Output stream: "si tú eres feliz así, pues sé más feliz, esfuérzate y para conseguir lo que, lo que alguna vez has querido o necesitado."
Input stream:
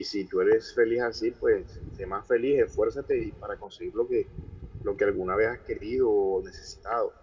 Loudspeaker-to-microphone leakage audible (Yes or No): Yes